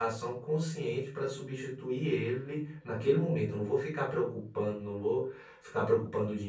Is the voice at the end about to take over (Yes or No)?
No